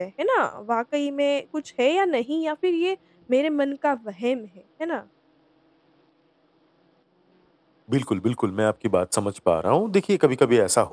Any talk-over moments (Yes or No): No